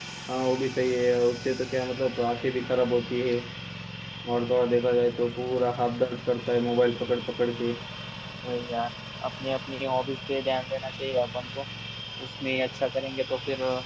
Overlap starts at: none

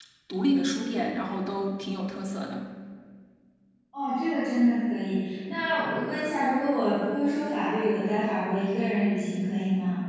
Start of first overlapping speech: none

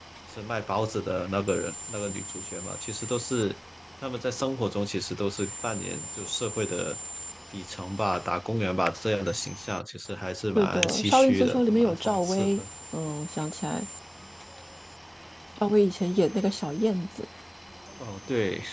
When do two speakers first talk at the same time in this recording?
11 s

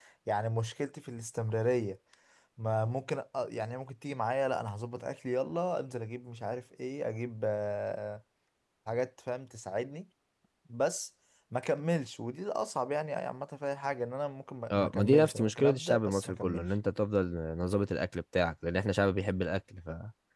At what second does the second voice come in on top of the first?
15 s

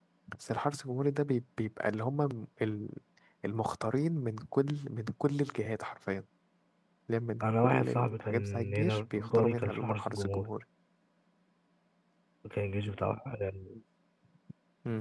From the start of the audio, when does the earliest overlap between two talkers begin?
7 s

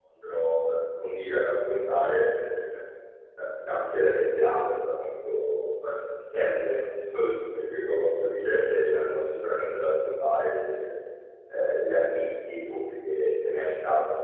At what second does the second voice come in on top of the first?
none

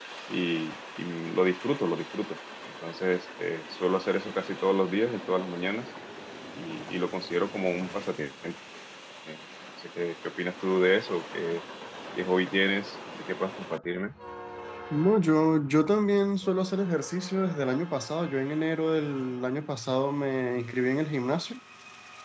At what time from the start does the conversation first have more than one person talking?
none

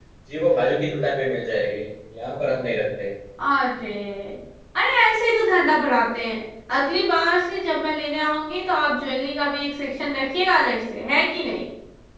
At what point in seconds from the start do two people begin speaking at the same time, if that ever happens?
none

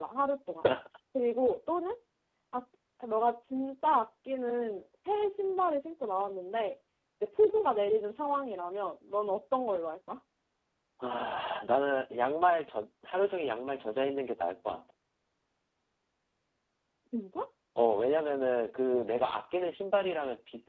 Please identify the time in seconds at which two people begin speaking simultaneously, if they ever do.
none

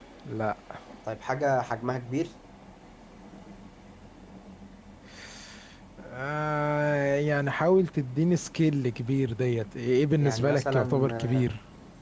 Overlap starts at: 10 s

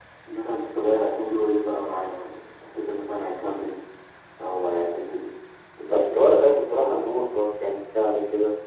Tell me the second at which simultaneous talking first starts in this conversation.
6 s

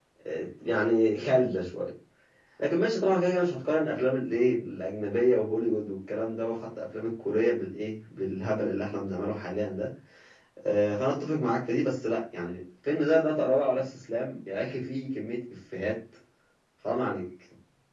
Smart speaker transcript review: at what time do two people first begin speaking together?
none

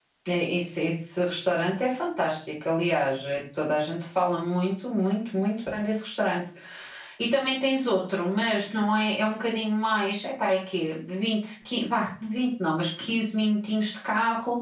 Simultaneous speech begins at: none

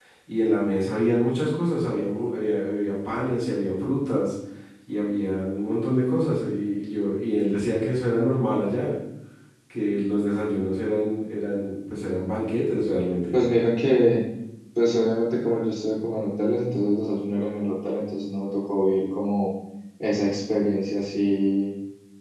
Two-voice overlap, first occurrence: none

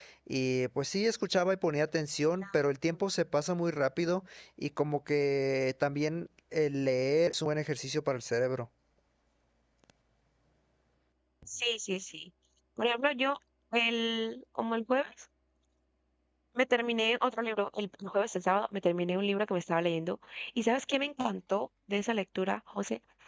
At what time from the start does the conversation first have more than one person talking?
none

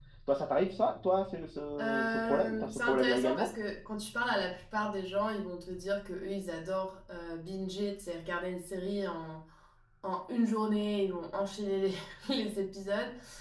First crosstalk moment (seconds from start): 2 s

